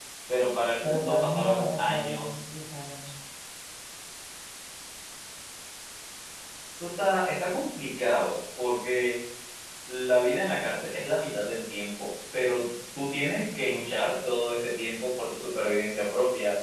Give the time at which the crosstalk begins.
0.8 s

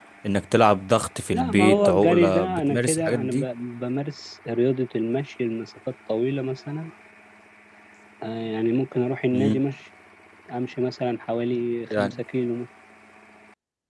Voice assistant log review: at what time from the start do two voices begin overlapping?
1.3 s

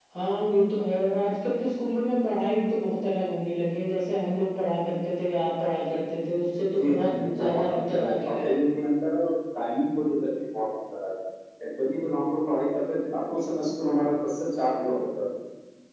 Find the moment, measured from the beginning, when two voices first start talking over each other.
6.8 s

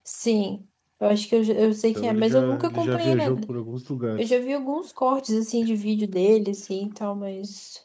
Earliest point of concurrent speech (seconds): 1.9 s

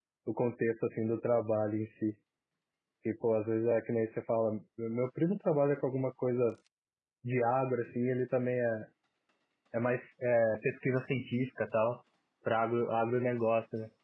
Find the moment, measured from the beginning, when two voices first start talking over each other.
none

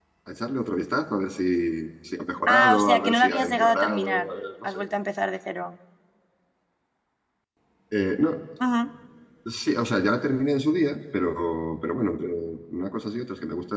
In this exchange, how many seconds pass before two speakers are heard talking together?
2.5 s

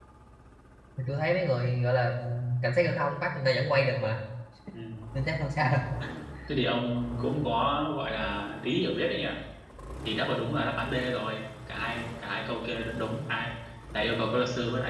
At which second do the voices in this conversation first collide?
none

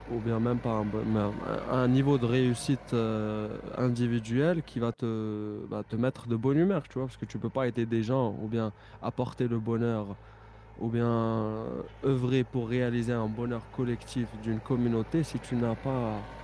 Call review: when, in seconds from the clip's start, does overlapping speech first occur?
none

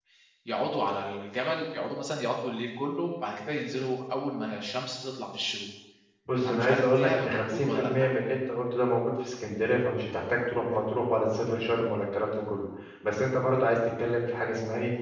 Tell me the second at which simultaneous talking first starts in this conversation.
6.4 s

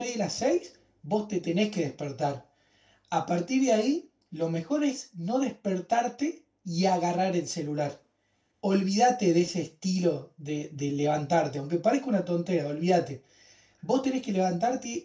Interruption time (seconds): none

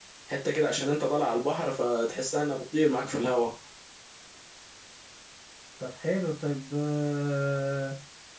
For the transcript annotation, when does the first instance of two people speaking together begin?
none

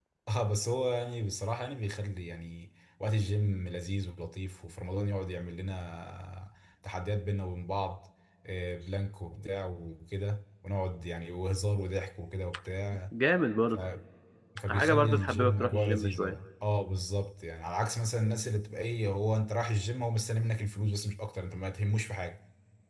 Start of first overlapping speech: 14.7 s

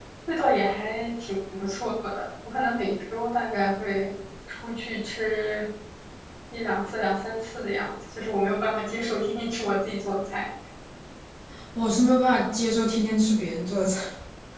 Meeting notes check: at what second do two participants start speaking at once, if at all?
none

